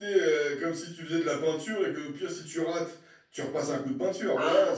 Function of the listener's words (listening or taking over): taking over